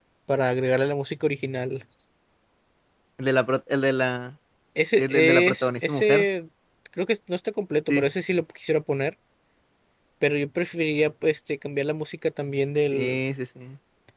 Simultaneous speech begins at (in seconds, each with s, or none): 5.0 s